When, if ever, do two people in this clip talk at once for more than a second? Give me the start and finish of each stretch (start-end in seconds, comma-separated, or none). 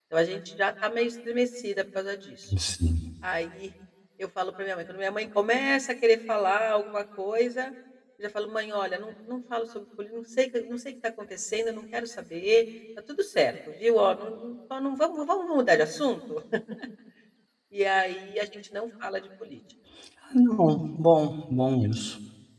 none